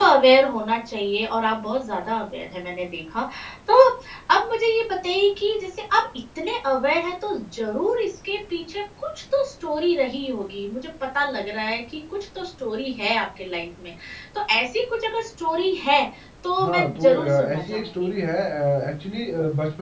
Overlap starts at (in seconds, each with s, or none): 16.6 s